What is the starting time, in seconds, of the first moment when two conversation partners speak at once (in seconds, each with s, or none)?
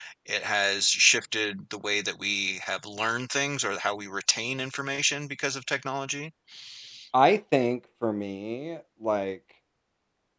none